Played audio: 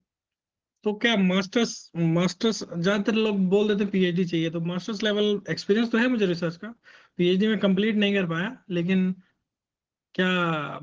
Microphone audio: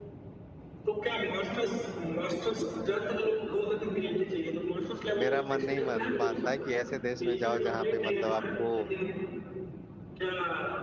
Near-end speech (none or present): present